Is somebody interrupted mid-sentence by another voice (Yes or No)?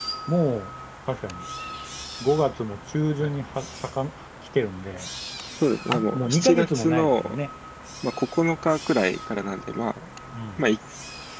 Yes